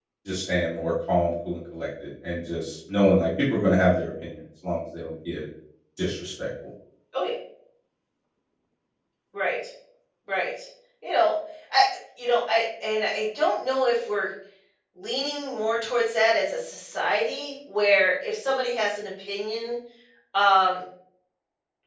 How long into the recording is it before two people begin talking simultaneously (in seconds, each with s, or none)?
none